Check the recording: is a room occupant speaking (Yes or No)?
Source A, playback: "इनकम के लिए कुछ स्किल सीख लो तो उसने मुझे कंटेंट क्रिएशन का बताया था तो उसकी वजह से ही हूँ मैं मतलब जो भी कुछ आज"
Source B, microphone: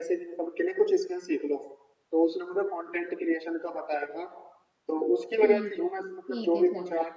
Yes